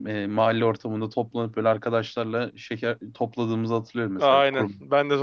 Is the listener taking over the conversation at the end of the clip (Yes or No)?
Yes